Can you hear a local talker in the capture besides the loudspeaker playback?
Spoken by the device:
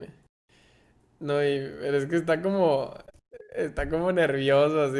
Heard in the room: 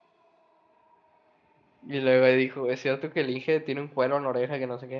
Yes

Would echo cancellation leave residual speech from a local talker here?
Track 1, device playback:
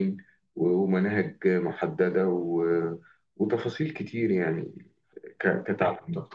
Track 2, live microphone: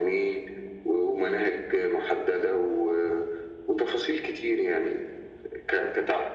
No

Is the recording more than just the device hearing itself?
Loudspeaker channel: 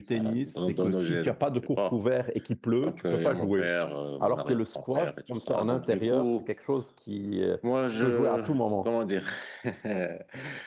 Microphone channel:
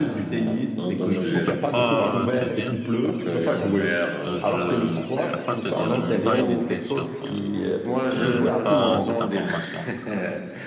Yes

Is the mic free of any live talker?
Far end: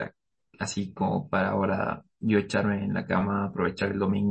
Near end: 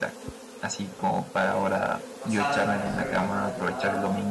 No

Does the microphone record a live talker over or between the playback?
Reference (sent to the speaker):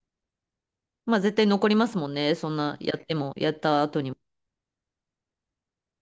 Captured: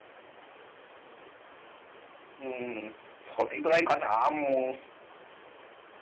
Yes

